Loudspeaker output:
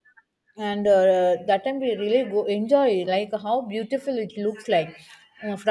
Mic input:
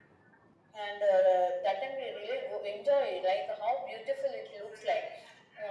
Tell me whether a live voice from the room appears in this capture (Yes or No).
No